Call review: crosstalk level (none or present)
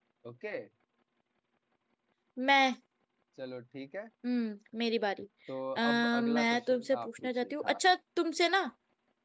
present